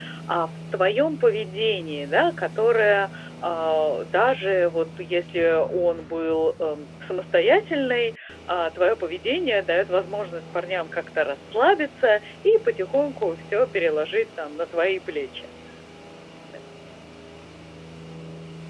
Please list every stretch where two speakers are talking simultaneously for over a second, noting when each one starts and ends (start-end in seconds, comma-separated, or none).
none